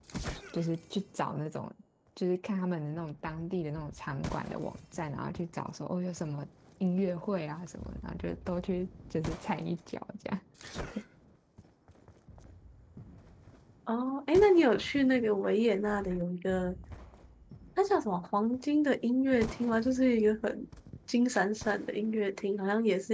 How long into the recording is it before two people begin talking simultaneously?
none

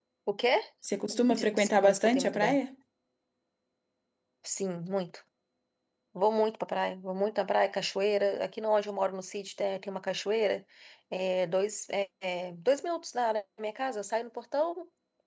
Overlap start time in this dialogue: 1.4 s

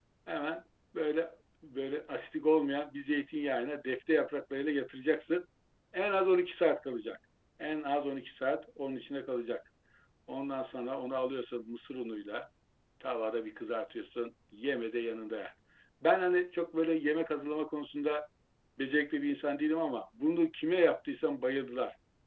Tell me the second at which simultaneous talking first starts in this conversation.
none

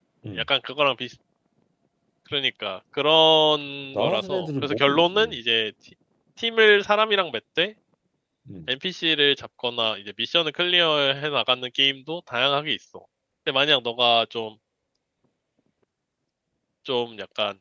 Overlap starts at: 3.9 s

